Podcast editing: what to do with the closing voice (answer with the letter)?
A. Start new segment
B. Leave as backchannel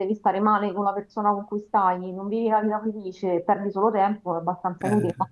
B